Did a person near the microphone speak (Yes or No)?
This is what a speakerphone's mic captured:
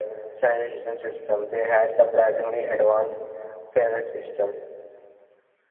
No